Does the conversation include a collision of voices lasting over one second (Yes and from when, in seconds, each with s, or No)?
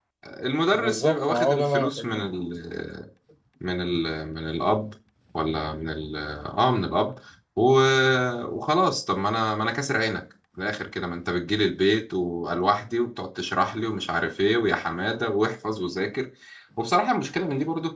Yes, from 0.7 s